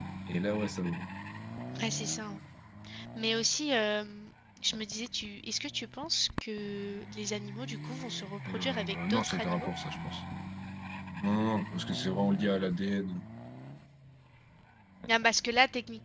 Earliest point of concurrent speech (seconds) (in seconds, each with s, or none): 8.4 s